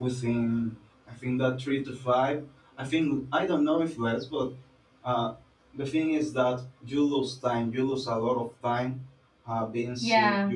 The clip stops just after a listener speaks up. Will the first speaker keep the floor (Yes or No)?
Yes